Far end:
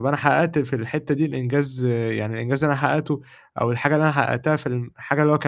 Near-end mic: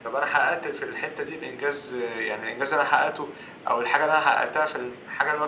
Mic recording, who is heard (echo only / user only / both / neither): echo only